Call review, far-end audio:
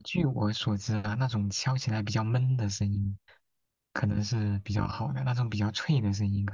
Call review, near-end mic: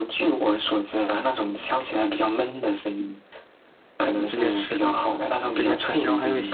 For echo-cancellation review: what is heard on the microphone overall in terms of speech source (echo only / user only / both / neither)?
both